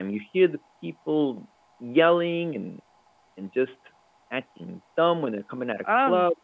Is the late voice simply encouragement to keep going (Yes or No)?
No